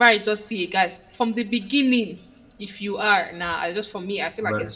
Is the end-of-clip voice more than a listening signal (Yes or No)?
Yes